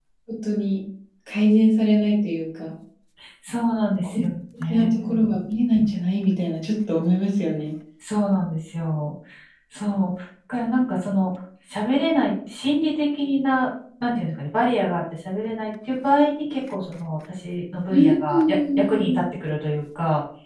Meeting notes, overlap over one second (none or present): present